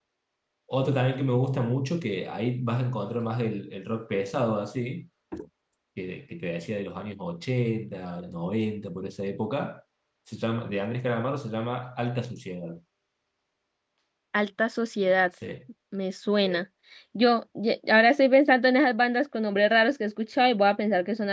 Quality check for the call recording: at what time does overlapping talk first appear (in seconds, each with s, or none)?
none